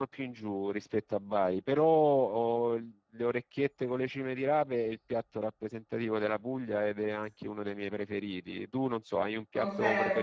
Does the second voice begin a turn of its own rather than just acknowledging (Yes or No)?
Yes